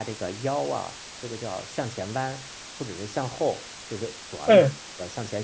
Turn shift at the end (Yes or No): No